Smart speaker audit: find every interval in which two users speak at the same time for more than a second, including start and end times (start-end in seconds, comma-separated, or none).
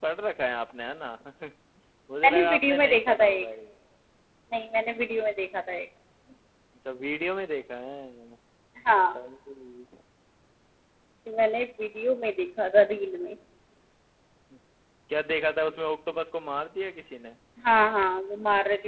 2.2-3.5